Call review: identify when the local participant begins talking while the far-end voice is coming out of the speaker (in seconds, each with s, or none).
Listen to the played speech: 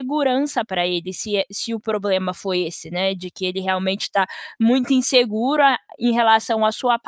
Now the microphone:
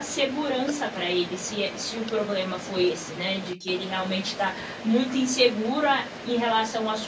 none